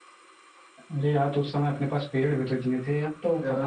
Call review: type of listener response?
taking over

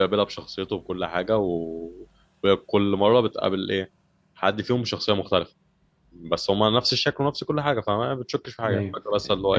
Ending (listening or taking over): taking over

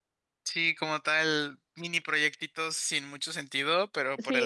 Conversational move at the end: listening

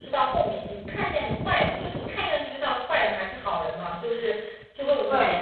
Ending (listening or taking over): listening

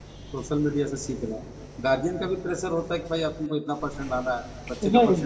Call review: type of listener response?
listening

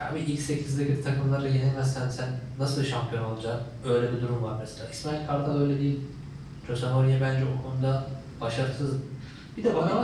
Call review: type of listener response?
listening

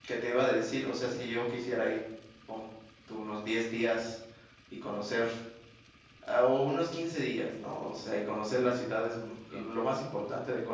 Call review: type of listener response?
listening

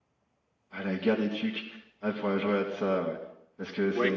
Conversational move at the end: taking over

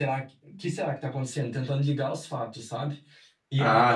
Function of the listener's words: taking over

